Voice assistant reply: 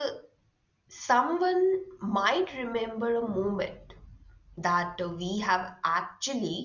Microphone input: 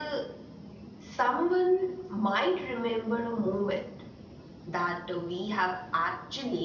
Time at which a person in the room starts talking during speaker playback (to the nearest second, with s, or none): none